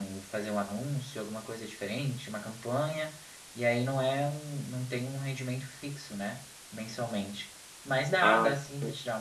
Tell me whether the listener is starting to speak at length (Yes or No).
No